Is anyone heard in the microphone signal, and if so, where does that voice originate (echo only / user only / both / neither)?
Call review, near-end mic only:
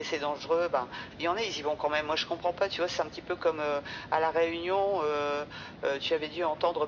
echo only